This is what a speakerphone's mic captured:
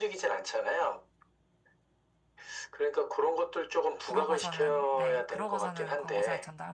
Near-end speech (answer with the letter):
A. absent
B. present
B